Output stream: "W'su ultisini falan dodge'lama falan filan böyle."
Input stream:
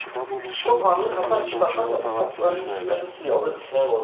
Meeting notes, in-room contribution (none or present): present